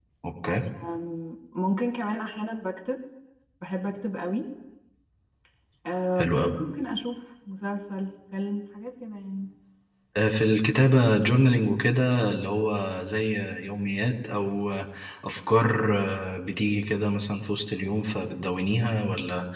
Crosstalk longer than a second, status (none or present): none